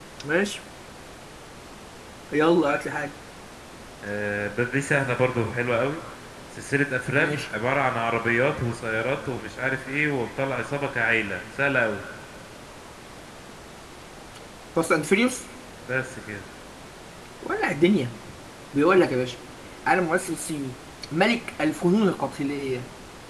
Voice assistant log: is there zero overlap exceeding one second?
Yes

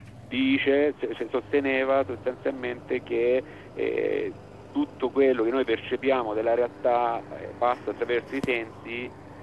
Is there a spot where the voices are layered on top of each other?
No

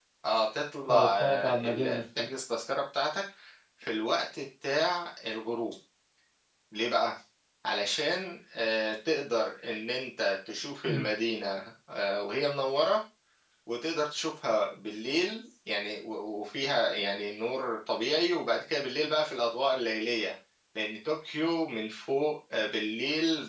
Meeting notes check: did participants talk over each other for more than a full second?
Yes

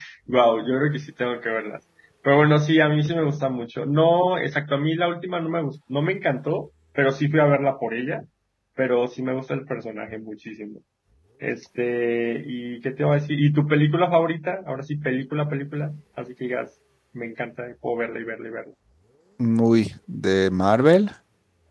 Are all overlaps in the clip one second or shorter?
Yes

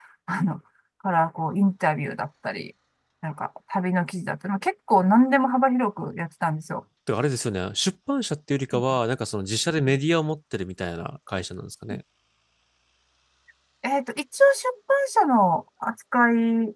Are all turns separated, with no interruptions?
Yes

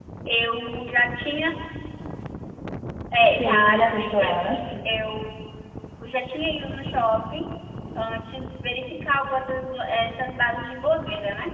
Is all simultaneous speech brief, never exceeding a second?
No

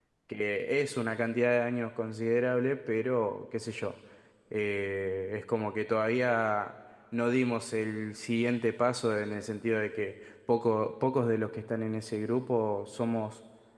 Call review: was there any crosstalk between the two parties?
No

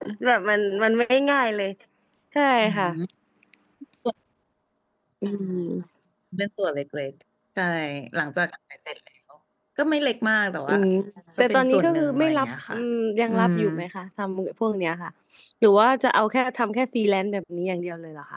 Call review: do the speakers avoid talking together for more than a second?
No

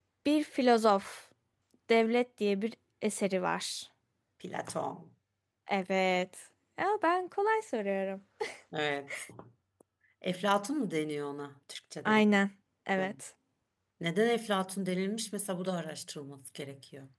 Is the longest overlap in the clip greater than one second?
No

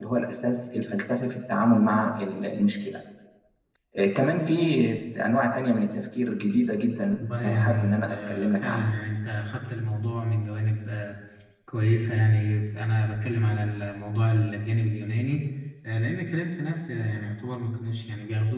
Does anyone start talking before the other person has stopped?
Yes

